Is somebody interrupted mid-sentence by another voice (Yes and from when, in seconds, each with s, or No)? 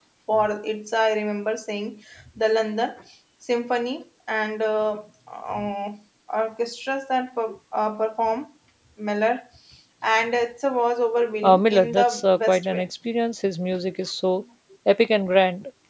Yes, from 11.4 s